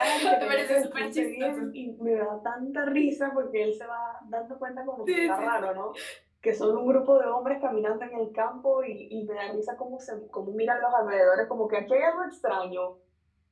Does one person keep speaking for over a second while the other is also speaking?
Yes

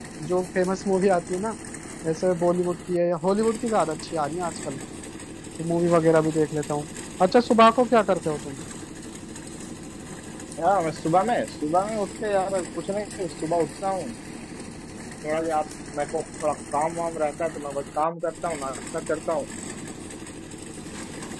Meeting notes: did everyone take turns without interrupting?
Yes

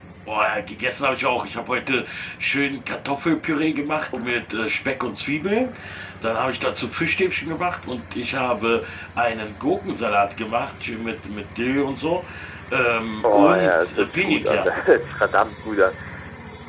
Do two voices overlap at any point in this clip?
Yes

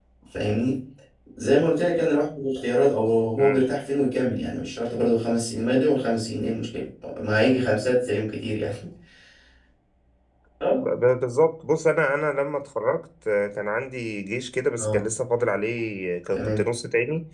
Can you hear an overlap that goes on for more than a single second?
No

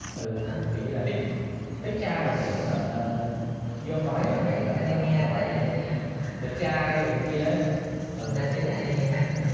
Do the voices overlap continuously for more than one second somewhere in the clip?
Yes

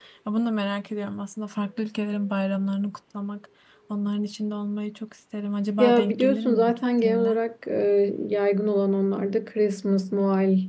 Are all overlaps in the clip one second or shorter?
No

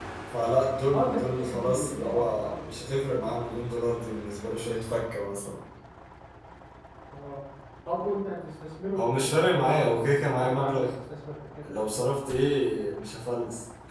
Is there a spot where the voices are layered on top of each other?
Yes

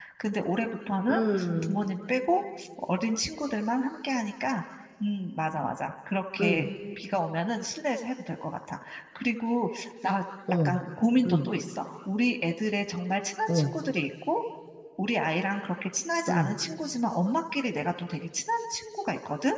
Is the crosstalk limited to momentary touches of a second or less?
Yes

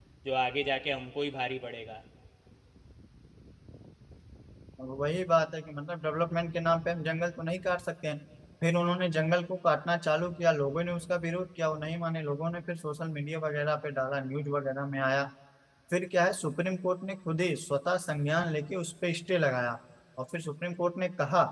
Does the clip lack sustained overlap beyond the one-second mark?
Yes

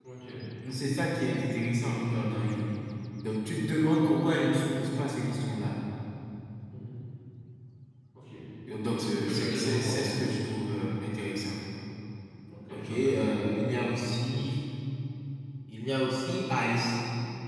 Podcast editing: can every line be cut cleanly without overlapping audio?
No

